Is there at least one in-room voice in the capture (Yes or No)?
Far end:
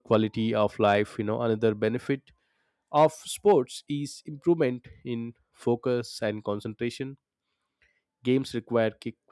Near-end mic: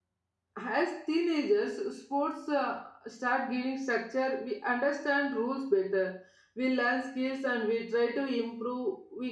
Yes